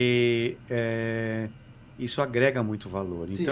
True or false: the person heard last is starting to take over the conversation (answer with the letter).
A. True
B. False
A